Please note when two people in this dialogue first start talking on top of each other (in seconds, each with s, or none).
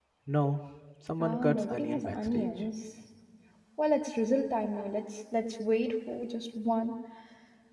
1.2 s